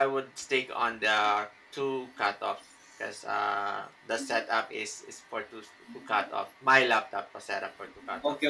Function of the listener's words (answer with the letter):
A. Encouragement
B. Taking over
B